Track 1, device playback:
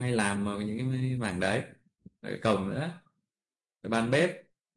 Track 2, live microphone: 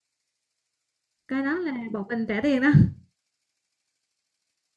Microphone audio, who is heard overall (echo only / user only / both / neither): user only